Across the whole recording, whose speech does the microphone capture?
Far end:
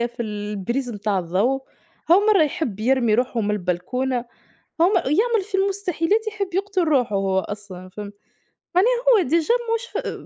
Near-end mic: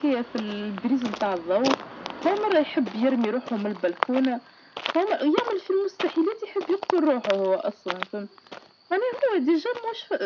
echo only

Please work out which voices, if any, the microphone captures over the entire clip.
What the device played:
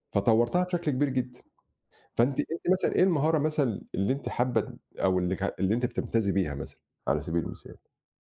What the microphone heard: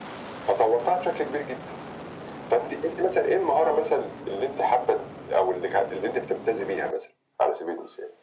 both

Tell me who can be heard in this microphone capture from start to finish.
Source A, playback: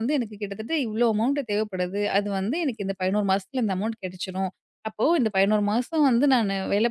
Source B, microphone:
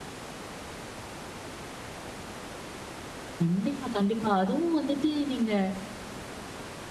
user only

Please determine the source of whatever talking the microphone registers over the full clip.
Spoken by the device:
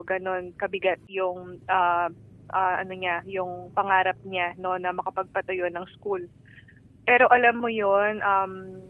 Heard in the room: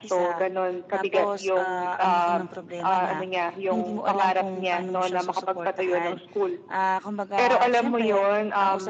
both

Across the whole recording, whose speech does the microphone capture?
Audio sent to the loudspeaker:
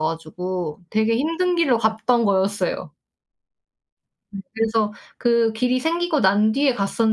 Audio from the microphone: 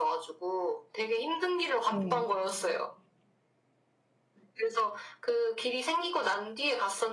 both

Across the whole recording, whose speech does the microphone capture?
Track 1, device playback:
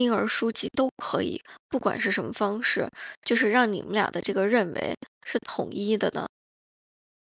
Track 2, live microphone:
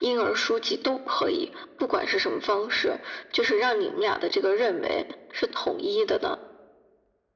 echo only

